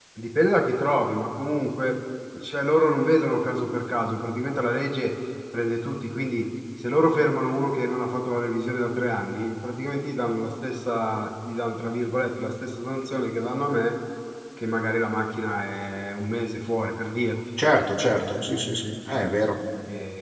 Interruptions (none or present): none